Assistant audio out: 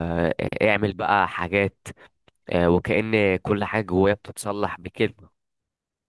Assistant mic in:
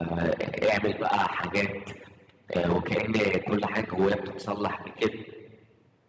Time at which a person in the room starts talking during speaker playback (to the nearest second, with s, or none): none